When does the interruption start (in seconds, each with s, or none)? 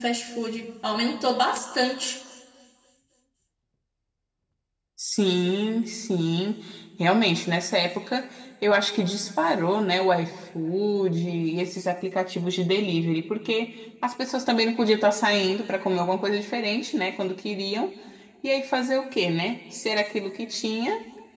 none